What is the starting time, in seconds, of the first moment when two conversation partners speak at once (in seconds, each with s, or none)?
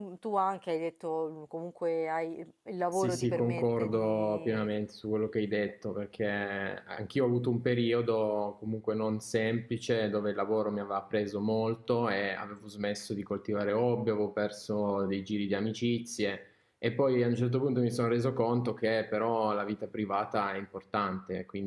2.9 s